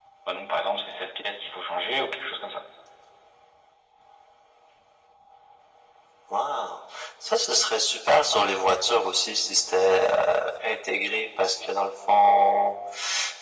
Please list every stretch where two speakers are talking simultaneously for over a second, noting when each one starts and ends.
none

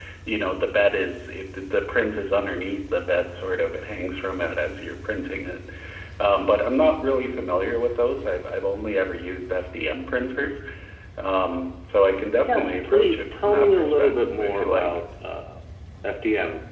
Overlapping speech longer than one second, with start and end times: 12.5-14.9

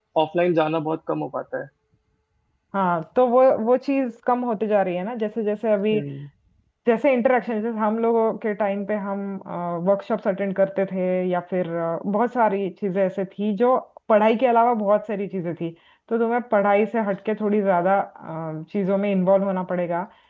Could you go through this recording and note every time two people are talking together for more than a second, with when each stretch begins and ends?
none

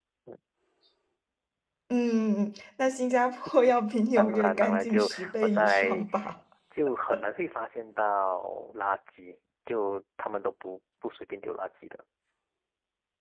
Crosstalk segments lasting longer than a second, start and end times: 4.2-6.0

